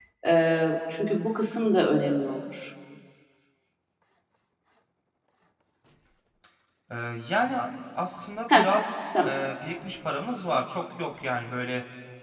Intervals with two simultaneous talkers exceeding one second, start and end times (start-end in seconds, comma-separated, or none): none